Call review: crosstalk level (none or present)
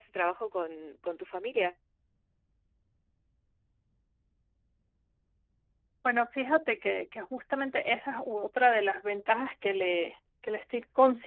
none